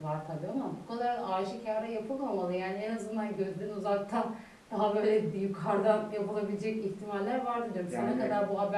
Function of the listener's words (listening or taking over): listening